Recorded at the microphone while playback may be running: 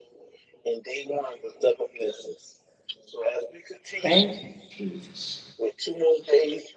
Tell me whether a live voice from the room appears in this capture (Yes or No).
Yes